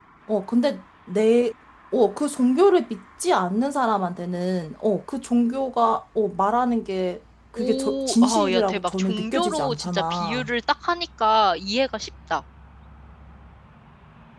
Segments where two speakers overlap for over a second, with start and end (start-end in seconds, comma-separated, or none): 7.6-10.5